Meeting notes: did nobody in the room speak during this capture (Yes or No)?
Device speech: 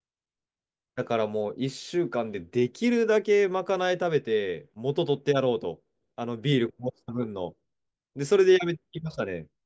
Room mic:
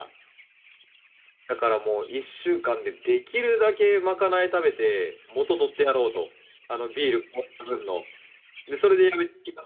Yes